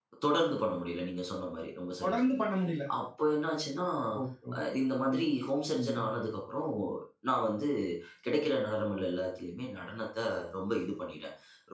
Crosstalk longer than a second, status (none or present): none